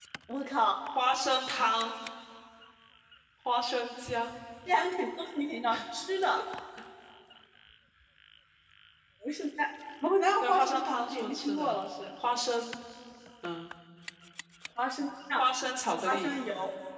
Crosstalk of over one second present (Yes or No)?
Yes